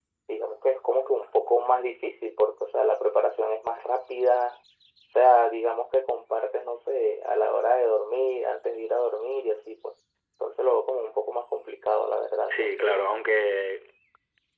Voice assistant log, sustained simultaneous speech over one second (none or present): none